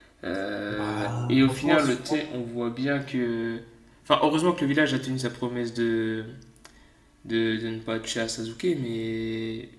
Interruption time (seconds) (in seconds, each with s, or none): 0.7 s